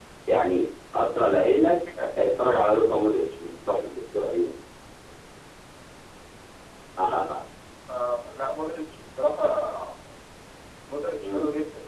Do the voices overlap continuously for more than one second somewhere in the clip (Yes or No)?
No